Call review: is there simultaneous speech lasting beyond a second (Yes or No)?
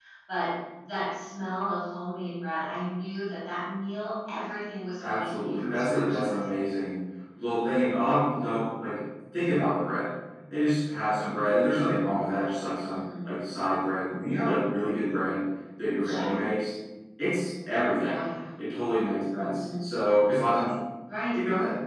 Yes